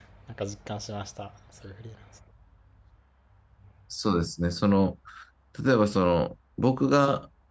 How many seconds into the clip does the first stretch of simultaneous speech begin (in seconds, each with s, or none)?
none